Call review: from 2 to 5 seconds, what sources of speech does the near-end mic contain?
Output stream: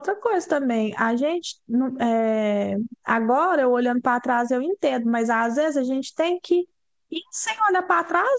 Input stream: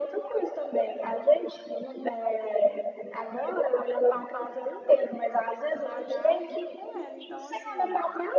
echo only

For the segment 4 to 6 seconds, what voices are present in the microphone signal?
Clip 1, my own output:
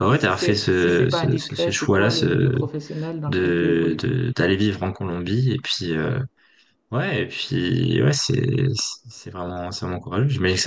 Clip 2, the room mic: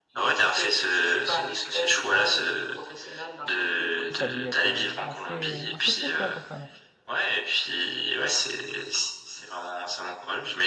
both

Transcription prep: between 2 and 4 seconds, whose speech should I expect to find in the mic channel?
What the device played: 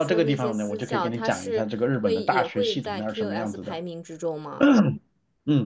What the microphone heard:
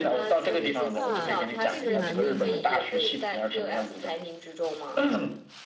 both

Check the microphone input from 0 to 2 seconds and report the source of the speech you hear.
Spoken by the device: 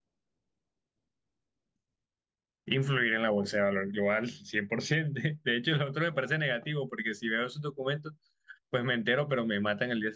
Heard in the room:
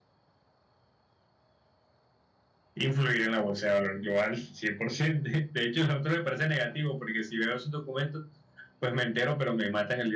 neither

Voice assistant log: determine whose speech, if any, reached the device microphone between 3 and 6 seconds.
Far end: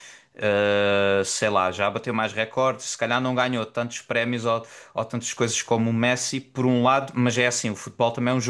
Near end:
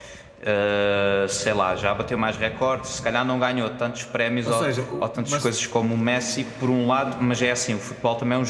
both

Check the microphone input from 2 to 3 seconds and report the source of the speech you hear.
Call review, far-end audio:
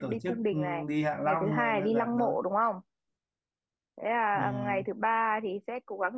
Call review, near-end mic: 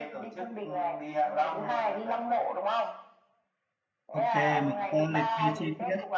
echo only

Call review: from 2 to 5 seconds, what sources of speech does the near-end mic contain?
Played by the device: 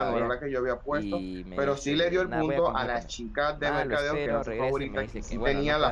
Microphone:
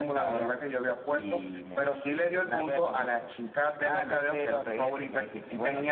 echo only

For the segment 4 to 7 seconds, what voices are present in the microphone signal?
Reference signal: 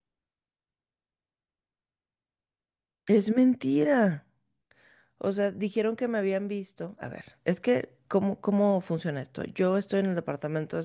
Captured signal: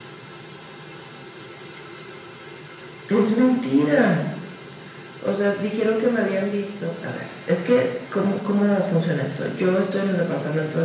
echo only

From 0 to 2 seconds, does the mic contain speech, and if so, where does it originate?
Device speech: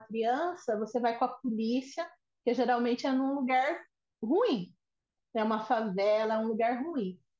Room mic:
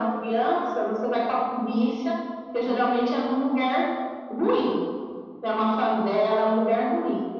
echo only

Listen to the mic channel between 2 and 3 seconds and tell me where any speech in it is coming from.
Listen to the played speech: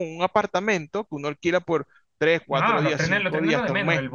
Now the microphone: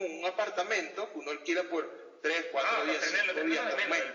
echo only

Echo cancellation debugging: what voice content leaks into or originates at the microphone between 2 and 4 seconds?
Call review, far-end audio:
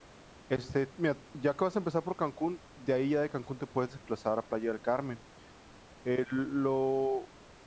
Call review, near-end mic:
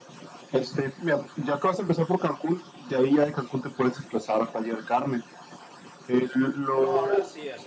echo only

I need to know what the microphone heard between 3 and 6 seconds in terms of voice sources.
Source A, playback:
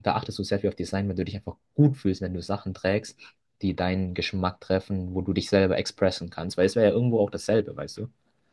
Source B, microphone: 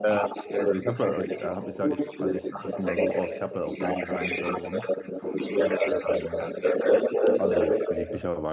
both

